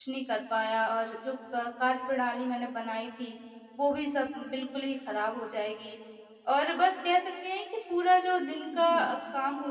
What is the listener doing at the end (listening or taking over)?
listening